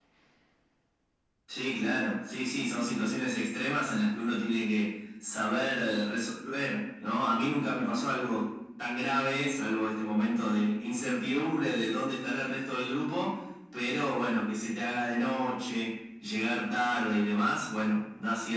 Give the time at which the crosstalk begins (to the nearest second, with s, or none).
none